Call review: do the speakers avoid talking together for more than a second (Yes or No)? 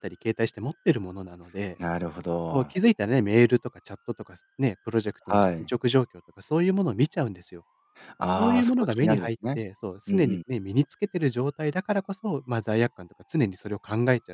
No